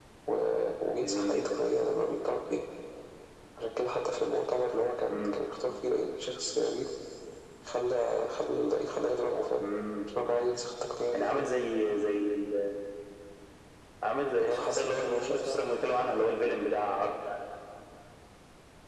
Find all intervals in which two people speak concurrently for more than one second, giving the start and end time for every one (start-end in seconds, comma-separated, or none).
14.4-15.6